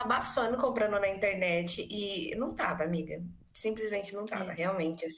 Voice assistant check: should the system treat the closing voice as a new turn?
No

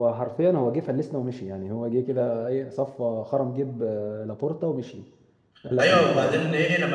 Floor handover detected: Yes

